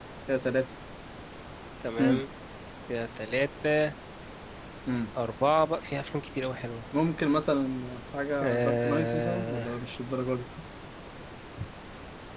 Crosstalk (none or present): present